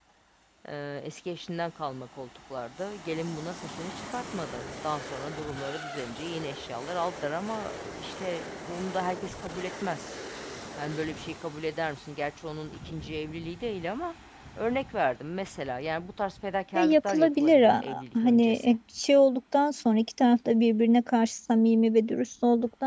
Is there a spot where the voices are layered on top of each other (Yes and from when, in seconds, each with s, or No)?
Yes, from 16.8 s